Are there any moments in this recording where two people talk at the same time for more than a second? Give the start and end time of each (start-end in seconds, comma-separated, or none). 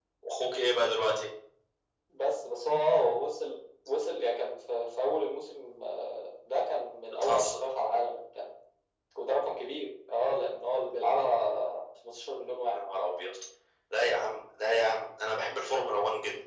none